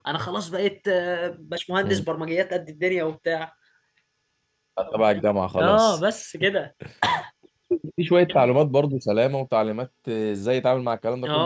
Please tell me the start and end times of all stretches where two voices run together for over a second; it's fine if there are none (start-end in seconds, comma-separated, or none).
none